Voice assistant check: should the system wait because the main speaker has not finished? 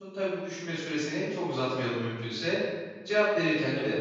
Yes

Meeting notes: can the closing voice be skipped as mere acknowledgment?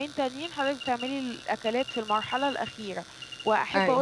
Yes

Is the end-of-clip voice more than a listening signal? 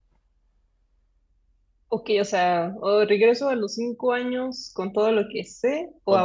Yes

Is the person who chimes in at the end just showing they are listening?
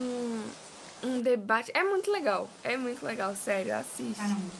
No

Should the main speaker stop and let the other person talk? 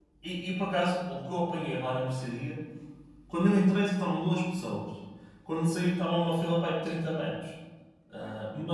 No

